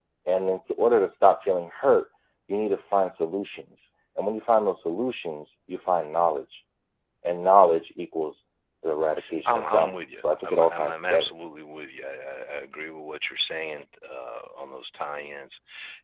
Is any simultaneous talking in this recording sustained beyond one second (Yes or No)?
Yes